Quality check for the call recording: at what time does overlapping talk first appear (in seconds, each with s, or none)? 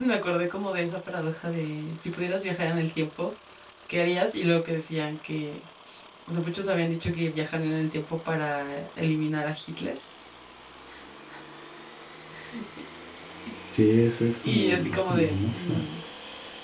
14.4 s